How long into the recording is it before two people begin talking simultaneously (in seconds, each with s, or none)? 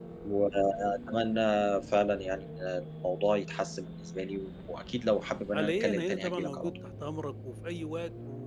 5.5 s